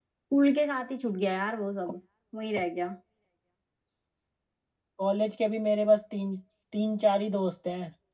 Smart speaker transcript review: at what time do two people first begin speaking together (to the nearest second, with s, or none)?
none